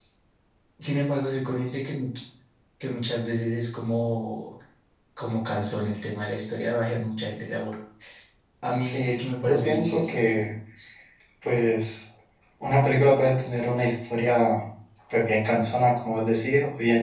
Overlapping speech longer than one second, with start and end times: 8.8-10.3

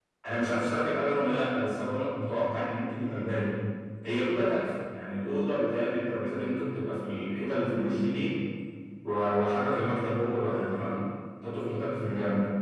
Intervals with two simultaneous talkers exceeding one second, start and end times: none

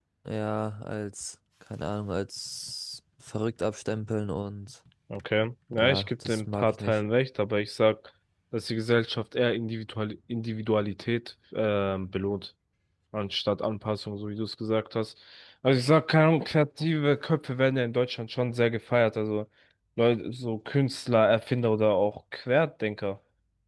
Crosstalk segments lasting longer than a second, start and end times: 5.8-7.0

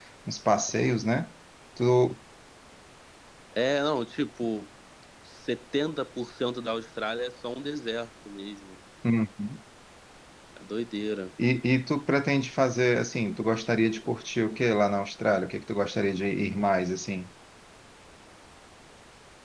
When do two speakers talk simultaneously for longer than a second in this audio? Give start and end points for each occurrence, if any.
none

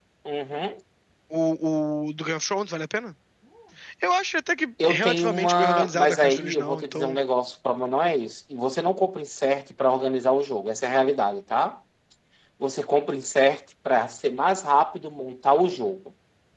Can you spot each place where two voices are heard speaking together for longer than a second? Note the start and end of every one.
4.8-7.2

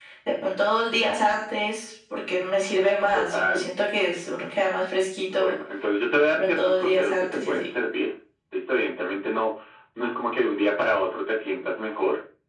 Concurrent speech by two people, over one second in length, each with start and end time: 6.3-7.6

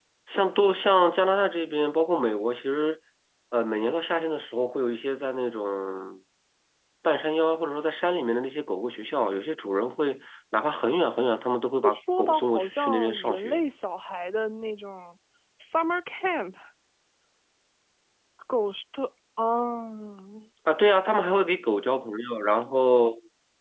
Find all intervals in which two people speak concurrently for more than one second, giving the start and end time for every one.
11.8-13.6

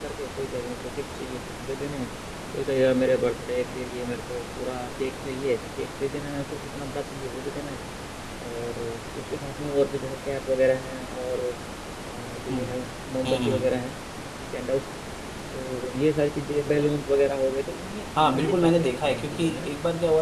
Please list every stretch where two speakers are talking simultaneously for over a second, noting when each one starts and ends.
18.2-19.7

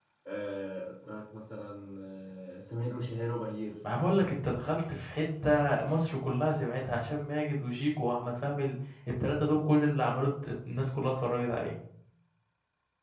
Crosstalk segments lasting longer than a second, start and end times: none

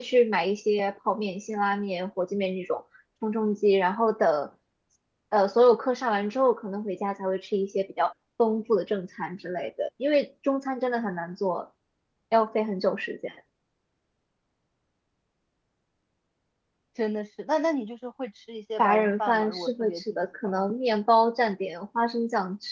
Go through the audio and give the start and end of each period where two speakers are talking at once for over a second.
18.8-20.7

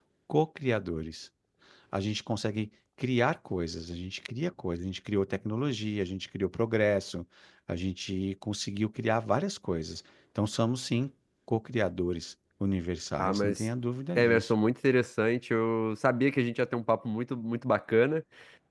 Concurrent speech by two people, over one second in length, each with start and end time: none

